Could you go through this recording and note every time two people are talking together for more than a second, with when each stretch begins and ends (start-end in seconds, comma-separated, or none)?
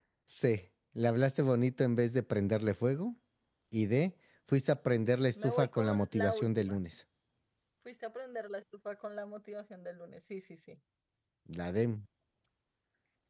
5.4-6.8